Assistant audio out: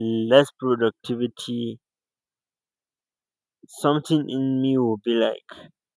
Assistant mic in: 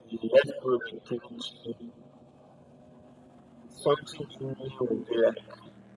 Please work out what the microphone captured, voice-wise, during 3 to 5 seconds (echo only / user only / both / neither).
echo only